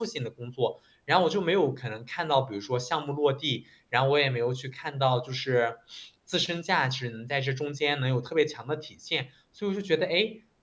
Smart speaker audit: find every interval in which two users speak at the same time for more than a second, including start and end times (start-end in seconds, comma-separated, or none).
none